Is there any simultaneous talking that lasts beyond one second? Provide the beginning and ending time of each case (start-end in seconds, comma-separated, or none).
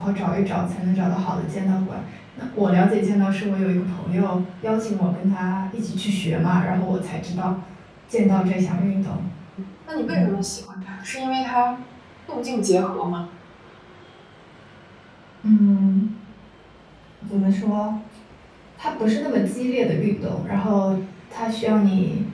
none